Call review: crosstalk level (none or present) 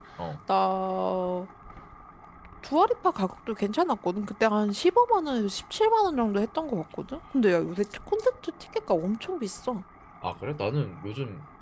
none